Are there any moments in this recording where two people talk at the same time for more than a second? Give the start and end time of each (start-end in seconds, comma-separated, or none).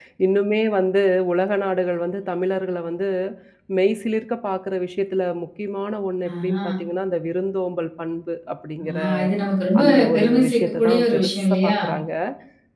9.8-11.7